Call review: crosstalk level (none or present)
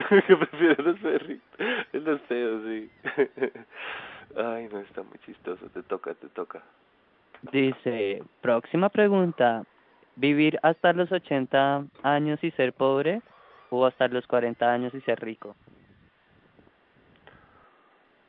none